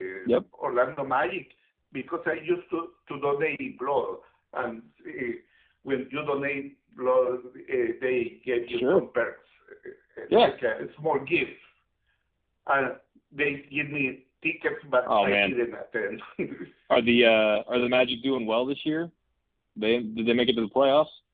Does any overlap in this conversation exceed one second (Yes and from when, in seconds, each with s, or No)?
No